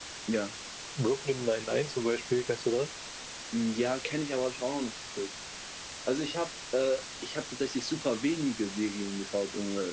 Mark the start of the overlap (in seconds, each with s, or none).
none